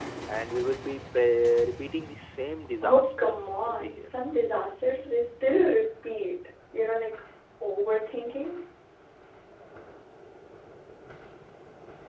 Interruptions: present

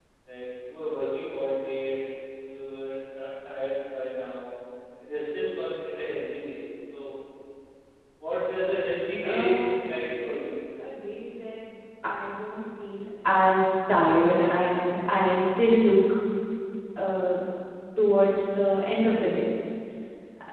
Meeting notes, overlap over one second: present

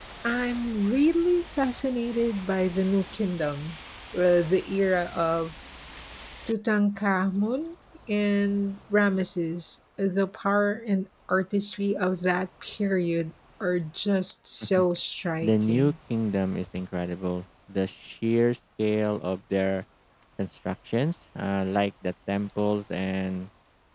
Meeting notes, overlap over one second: none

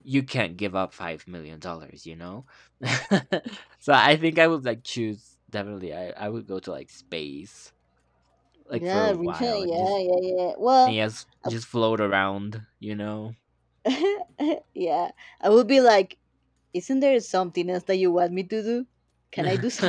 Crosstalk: present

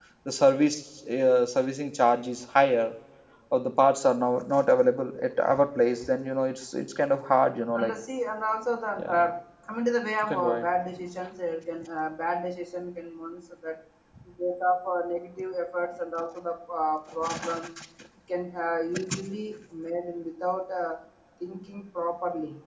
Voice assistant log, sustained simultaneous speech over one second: none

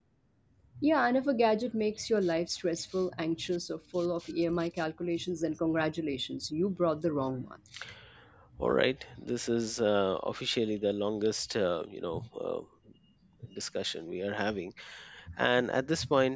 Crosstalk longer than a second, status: none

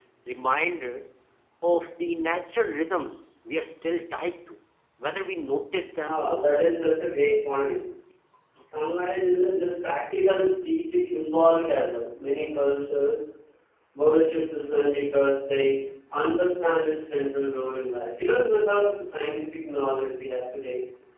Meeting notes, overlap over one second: none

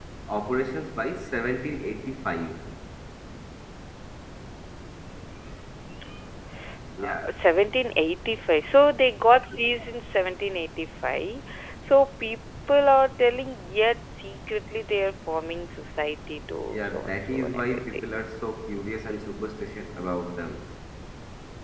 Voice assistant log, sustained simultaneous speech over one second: present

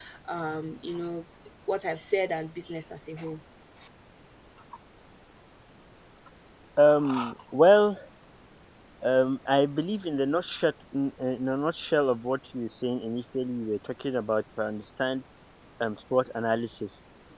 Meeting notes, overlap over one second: none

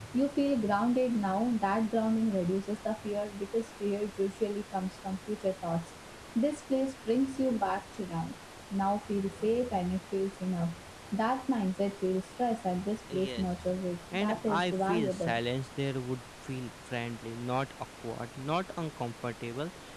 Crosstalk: present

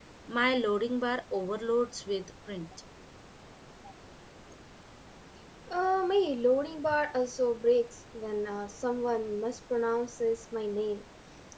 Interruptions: none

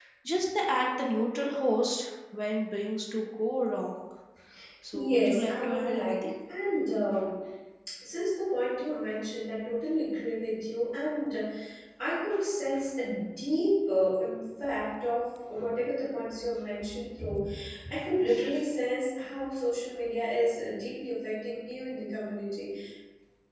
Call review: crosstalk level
present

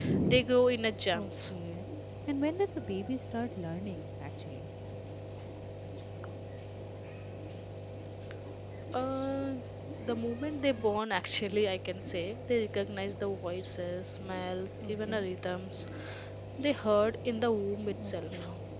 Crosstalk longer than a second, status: none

